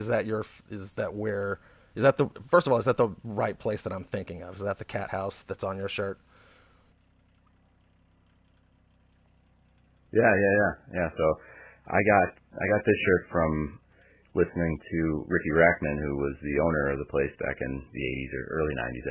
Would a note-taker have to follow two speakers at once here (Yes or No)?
No